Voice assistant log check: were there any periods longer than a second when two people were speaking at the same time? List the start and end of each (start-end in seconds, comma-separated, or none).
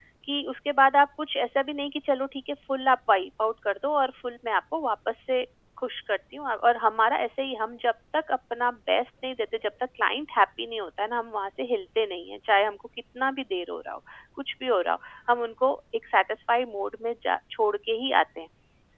none